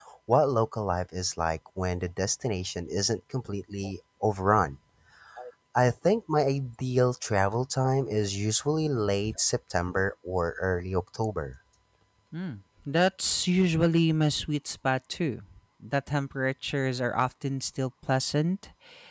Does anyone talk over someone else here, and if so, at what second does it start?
none

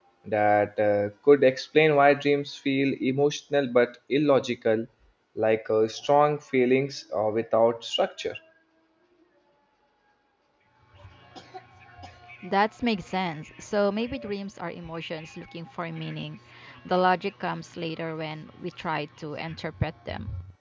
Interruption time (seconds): none

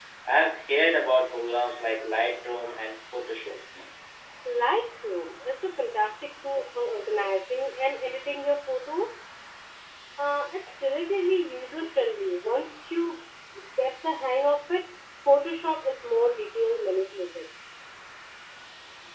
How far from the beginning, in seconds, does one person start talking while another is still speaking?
none

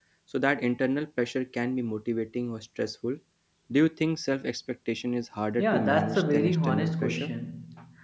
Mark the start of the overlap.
5.6 s

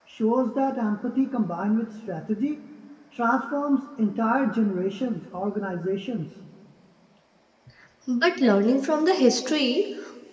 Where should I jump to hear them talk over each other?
none

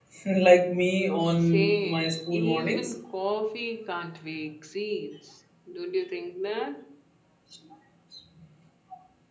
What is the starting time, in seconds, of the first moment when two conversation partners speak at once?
1.4 s

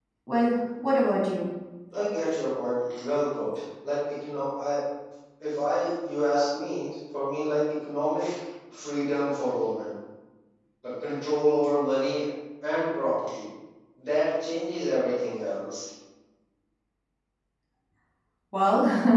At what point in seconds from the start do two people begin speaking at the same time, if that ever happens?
none

